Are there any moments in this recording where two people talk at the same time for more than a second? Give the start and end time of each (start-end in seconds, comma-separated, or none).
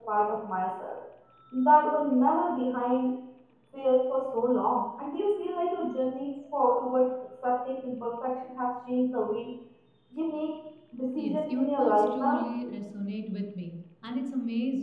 11.2-12.4